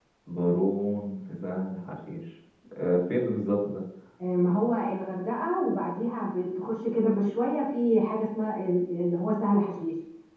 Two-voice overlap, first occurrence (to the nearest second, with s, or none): none